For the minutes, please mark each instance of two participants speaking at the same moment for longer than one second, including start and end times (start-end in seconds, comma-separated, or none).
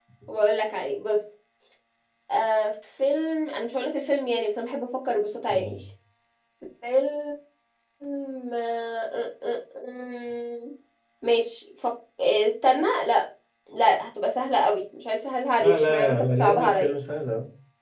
15.6-16.9